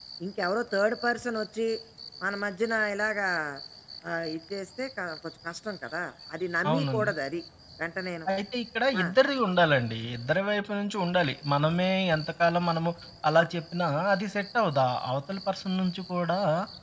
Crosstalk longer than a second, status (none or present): none